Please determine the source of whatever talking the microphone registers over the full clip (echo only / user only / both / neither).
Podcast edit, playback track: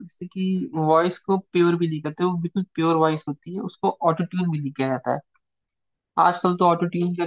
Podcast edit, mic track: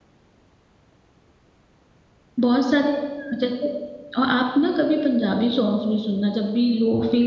user only